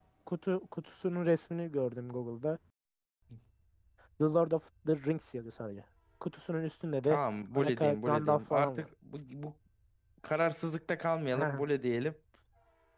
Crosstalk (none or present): present